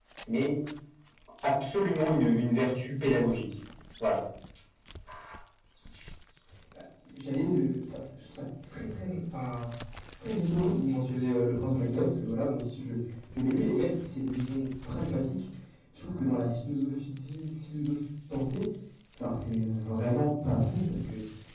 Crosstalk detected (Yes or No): No